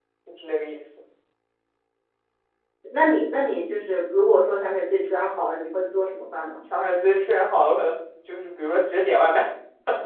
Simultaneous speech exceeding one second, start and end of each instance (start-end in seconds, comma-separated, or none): none